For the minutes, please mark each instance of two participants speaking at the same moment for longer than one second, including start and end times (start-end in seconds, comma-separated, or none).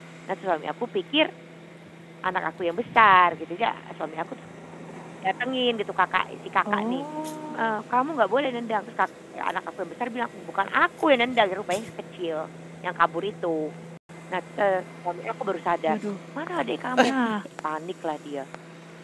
none